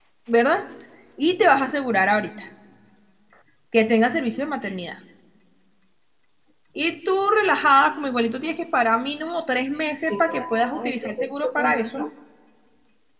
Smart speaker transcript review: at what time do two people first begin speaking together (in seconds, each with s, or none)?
10.0 s